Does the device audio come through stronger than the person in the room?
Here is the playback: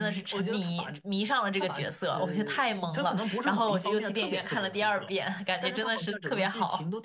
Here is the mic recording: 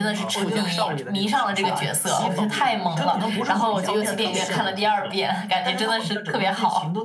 Yes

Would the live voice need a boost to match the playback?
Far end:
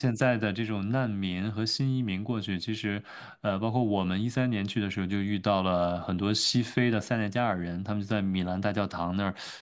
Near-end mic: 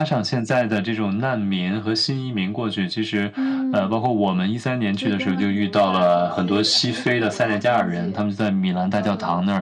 Yes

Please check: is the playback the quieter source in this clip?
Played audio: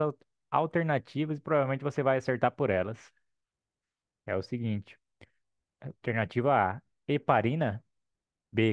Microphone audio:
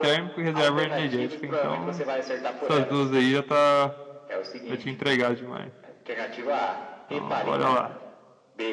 Yes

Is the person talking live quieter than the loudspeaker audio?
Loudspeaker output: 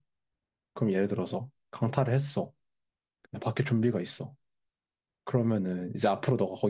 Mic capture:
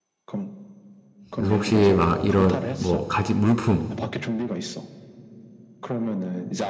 No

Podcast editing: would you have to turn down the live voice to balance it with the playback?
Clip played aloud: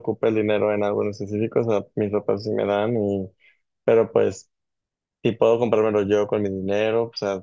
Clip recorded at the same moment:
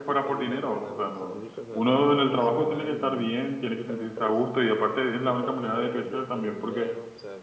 Yes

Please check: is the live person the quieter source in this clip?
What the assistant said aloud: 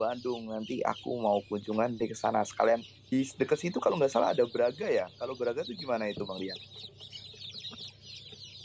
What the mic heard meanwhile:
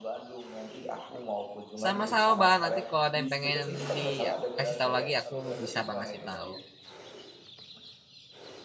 No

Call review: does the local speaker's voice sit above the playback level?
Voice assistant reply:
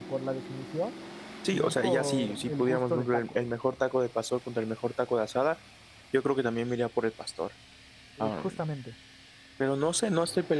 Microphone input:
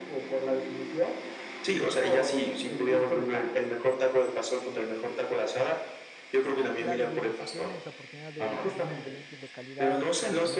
No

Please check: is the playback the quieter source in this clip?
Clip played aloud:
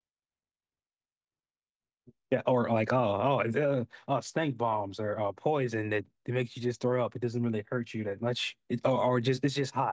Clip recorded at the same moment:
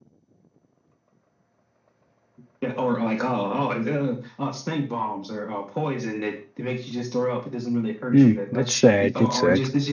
Yes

